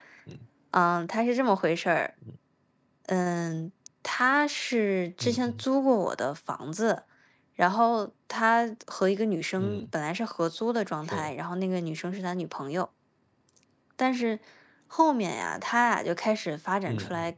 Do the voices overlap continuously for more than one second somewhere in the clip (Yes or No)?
No